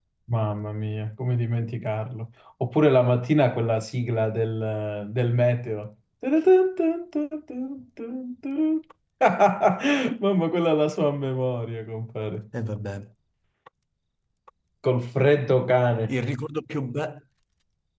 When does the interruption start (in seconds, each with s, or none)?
none